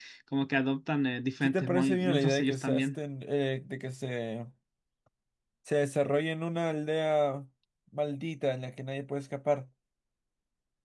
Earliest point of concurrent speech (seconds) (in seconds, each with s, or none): 1.4 s